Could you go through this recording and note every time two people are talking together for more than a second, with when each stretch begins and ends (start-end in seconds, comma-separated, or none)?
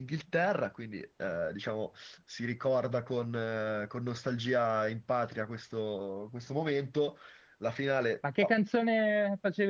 none